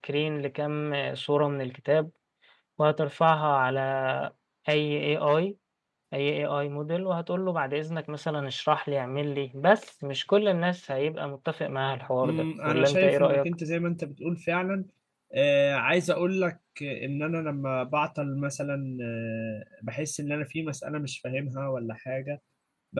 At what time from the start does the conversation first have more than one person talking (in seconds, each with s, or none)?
12.2 s